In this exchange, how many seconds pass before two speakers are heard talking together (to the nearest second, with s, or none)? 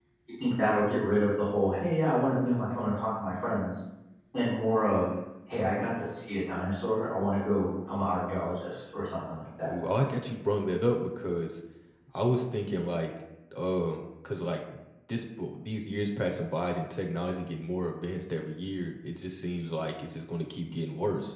none